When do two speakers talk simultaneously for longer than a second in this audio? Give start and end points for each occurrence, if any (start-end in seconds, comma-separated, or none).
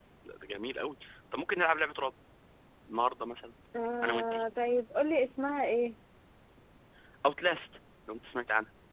none